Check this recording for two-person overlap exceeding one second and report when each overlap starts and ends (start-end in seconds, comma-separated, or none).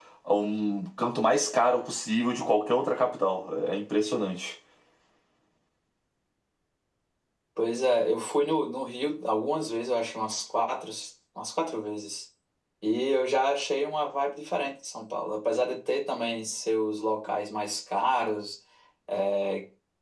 none